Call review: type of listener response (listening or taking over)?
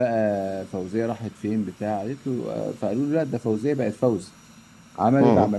listening